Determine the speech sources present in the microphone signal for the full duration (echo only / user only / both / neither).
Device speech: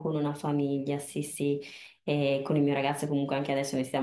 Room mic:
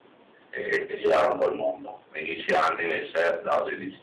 user only